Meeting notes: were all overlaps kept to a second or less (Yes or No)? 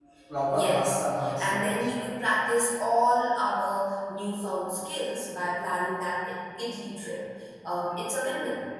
No